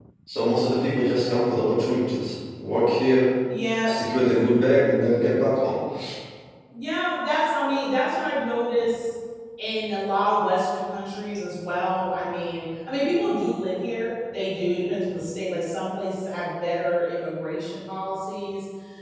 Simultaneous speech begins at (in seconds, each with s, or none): none